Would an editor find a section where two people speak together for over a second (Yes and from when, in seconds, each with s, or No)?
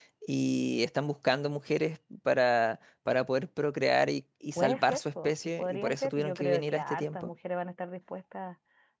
Yes, from 4.5 s